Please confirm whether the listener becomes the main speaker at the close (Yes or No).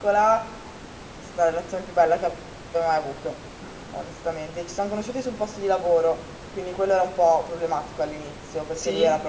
No